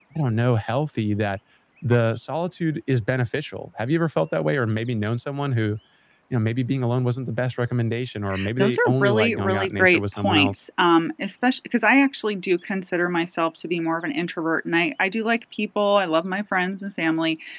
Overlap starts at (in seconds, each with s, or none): 8.6 s